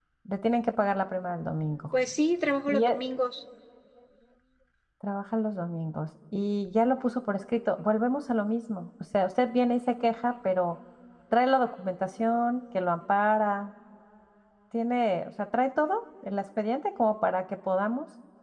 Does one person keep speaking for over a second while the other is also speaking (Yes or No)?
No